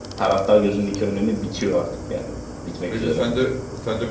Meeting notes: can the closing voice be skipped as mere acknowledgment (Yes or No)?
No